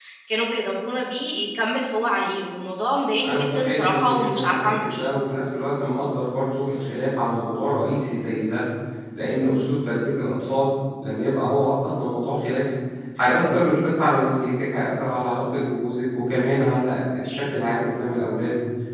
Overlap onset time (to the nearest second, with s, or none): 3 s